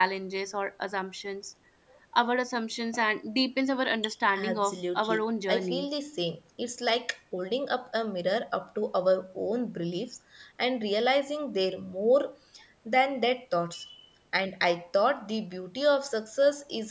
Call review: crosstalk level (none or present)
present